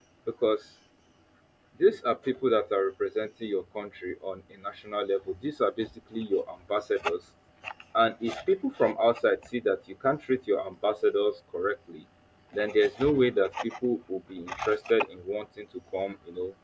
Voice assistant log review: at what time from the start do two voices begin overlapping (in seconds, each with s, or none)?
none